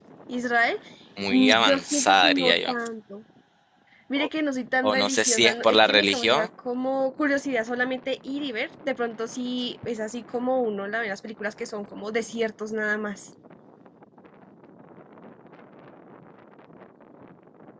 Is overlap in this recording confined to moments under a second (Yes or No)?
No